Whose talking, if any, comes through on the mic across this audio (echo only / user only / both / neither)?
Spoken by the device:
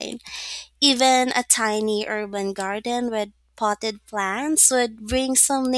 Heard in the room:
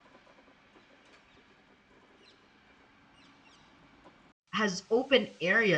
user only